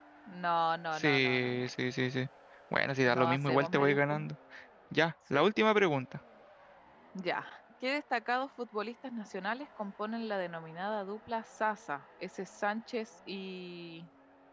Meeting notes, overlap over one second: present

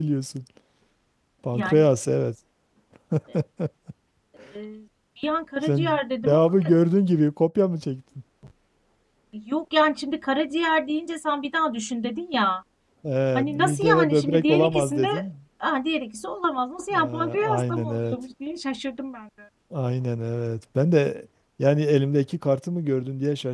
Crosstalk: present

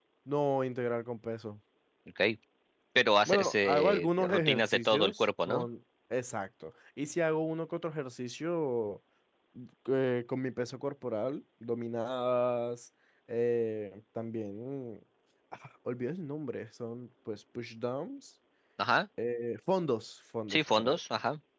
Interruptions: present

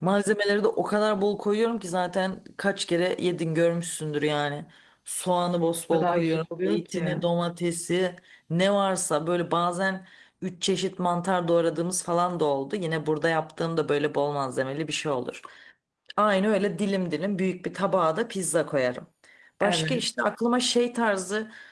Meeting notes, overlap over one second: present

